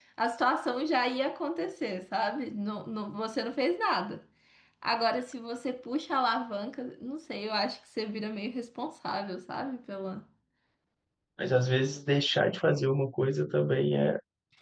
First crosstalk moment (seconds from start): none

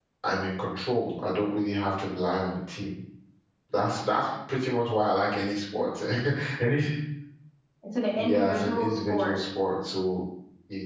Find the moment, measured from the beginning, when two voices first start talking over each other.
8 s

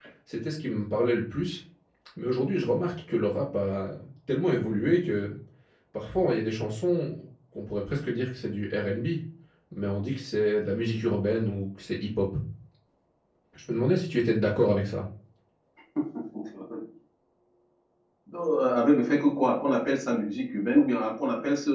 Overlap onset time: none

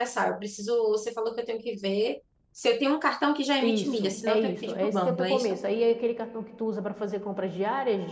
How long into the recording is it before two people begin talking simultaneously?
4 s

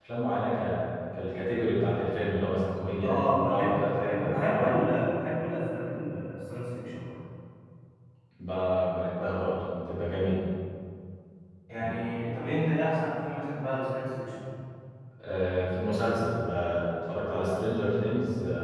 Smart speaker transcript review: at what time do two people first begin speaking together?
3 s

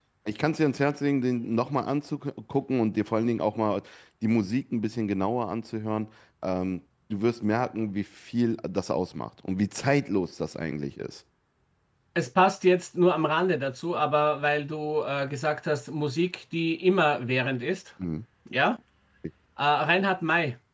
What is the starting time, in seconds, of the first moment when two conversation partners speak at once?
none

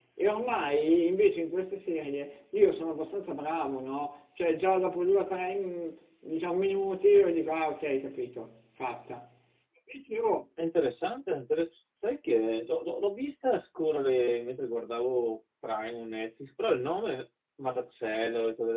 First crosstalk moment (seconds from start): none

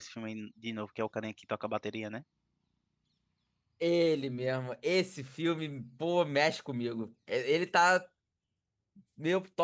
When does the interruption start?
none

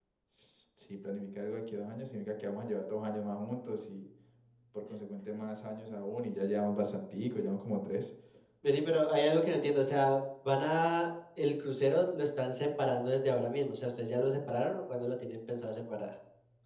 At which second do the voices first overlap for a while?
none

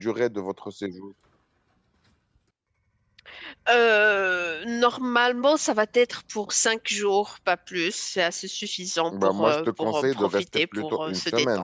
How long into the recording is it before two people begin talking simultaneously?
9 s

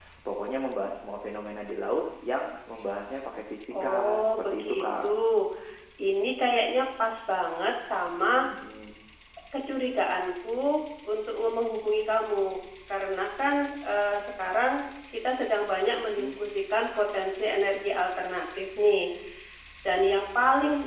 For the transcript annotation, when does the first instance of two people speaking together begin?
4 s

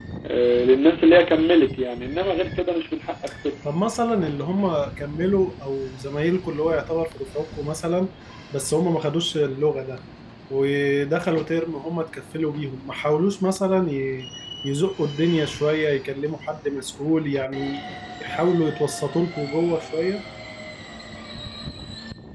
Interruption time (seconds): none

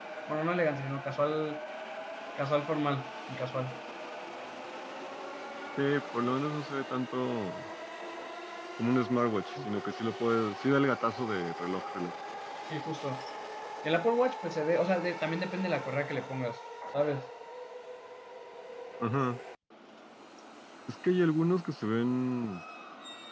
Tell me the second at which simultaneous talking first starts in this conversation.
none

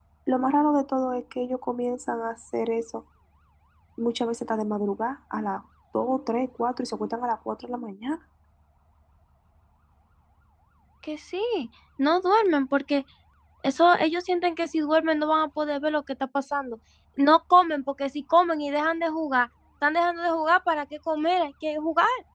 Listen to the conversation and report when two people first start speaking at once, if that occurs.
none

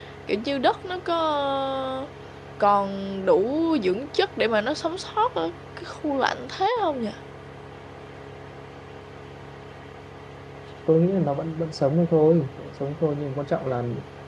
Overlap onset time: none

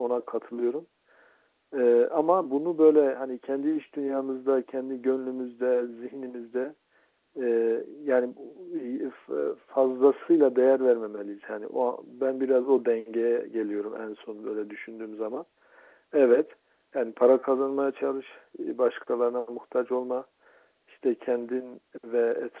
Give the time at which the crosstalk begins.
none

